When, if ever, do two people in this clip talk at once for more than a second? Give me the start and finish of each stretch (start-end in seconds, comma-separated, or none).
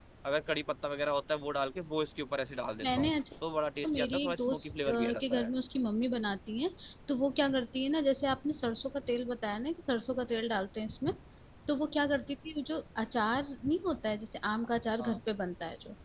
3.8-5.5